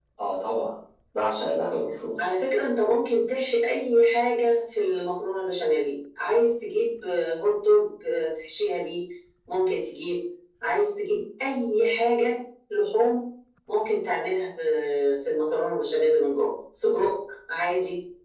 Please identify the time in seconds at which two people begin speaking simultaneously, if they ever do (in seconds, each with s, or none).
none